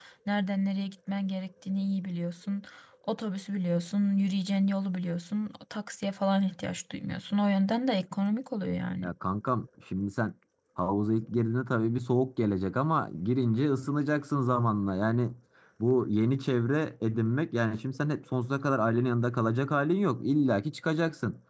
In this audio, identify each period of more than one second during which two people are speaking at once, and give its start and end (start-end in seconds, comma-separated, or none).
none